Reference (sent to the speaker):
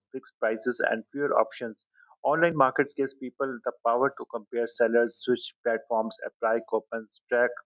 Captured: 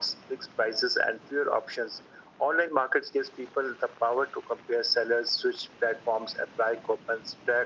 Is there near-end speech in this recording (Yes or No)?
No